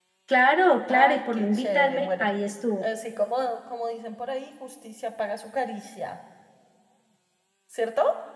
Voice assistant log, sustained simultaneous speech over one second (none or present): present